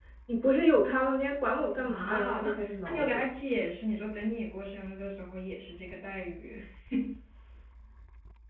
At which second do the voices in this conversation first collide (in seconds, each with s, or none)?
1.8 s